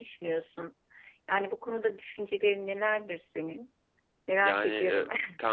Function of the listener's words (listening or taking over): taking over